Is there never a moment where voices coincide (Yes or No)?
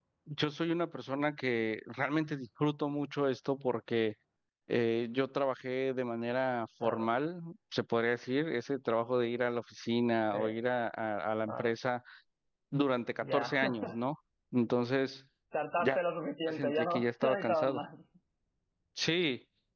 No